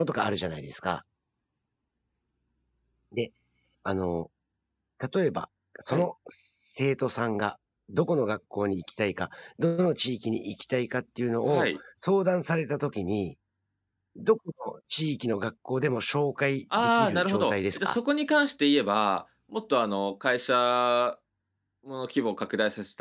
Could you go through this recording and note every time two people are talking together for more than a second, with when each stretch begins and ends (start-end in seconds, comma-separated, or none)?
16.8-18.0